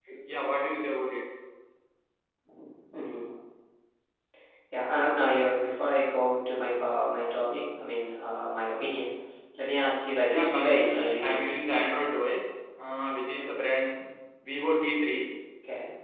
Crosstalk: present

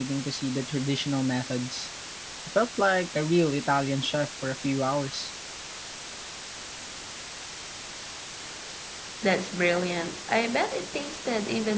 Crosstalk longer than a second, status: none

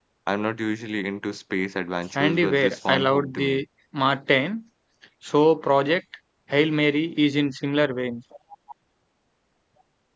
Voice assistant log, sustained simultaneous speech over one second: present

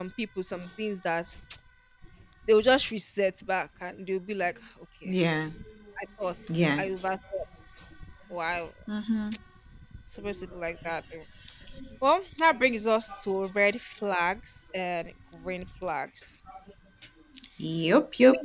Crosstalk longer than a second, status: none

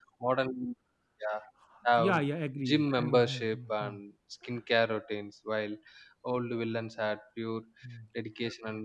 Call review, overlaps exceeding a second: present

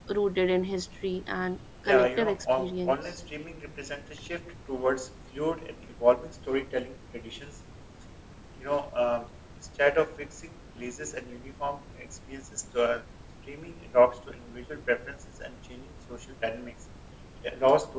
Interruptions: present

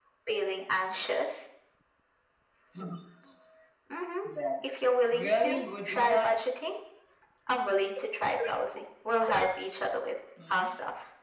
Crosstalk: present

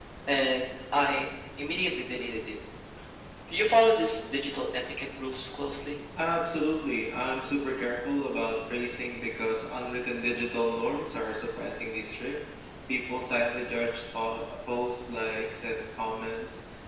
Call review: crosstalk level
none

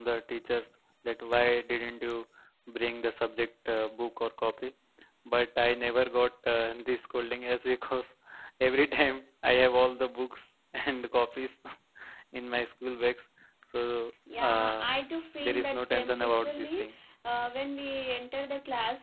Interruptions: present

